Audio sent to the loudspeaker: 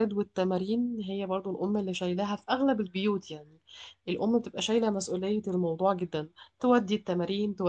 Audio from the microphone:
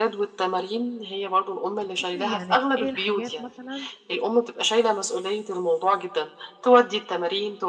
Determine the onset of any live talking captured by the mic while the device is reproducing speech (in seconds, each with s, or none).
1.9 s